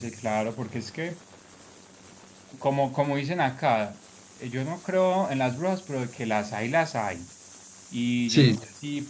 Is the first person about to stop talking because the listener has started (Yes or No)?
No